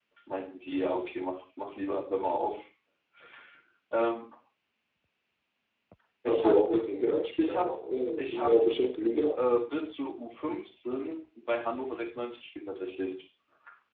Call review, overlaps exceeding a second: none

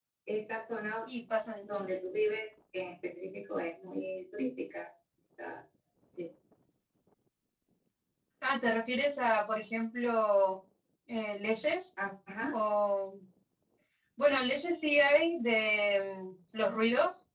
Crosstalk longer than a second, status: none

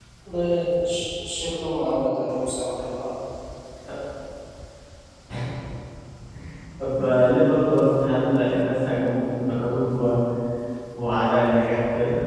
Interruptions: none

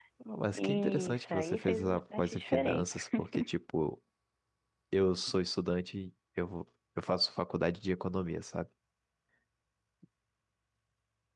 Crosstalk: present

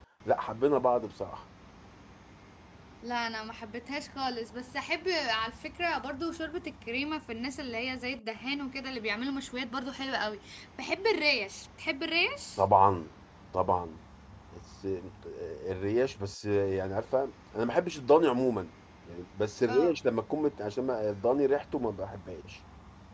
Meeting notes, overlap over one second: none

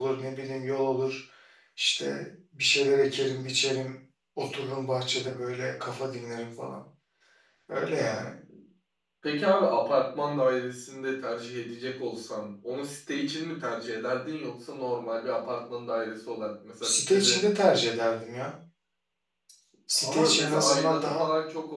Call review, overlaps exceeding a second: present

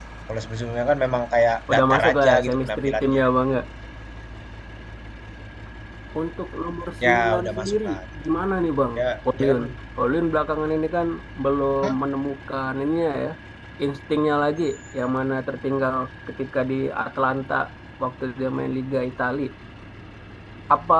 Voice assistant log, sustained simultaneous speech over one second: present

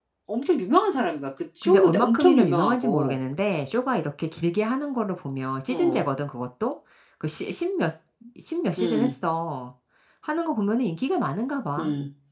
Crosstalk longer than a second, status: present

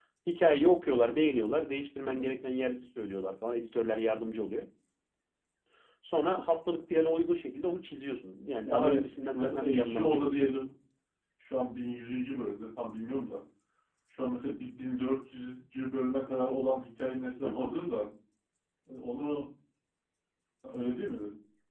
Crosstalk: present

